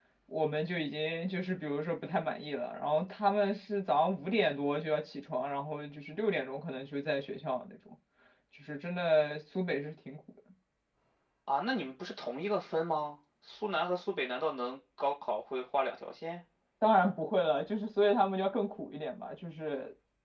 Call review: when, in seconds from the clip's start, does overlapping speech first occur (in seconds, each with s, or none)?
none